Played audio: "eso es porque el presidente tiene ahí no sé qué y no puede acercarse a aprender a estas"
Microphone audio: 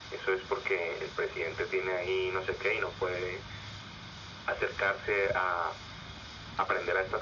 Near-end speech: none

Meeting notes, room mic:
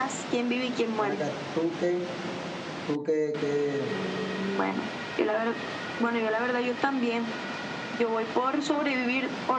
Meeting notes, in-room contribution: present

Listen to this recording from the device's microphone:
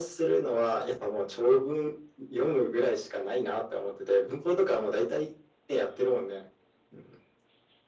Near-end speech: none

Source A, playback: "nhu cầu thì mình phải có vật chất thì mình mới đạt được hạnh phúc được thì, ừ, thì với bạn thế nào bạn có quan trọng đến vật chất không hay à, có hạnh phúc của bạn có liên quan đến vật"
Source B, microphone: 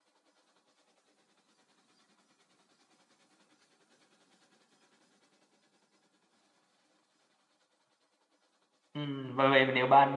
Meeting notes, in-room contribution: present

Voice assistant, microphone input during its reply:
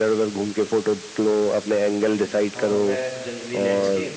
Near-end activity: present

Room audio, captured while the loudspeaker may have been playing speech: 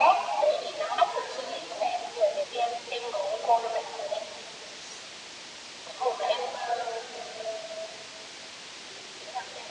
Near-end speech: none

